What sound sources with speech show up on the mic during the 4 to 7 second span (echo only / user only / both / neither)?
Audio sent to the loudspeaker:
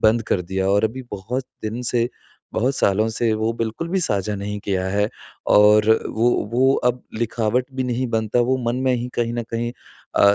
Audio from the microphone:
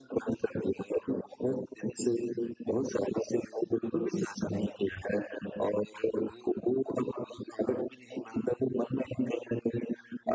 echo only